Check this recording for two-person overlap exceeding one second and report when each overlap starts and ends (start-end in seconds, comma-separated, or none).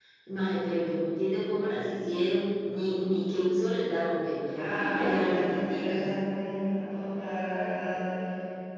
4.5-6.1